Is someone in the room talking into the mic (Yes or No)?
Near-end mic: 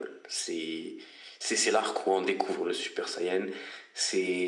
No